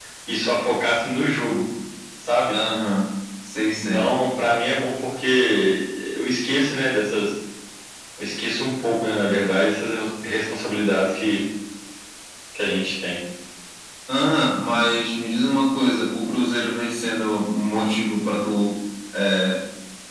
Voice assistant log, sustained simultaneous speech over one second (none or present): none